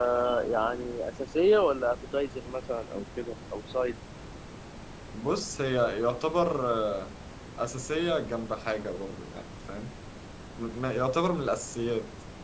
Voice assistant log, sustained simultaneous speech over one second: none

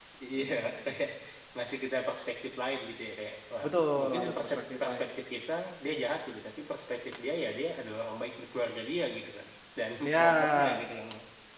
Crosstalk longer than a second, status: present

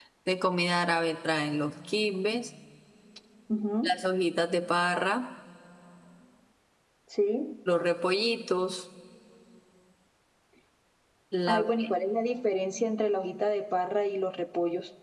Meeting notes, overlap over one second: none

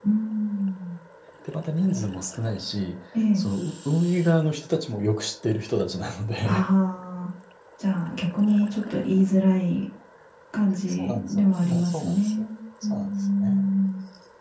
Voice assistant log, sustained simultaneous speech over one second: present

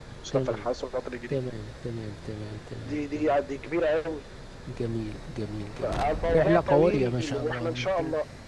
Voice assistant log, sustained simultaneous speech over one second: present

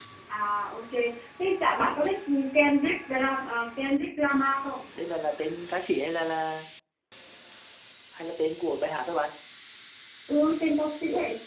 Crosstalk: none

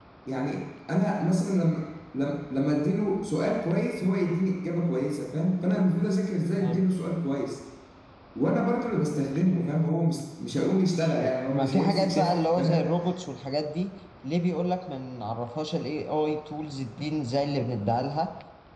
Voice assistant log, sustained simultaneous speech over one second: present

